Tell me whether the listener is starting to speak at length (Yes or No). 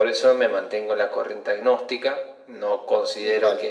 No